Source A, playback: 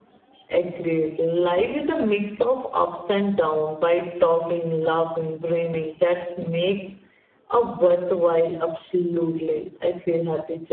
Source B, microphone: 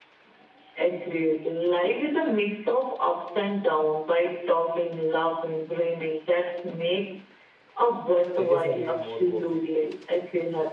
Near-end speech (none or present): present